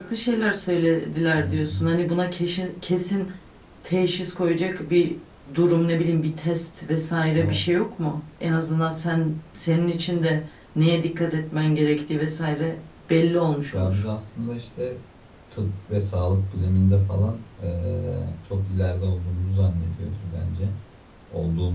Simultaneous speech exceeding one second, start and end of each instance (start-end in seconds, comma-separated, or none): none